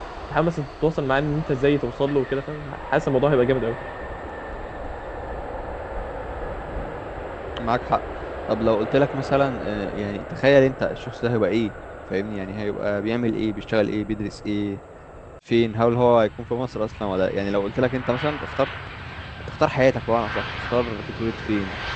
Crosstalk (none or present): none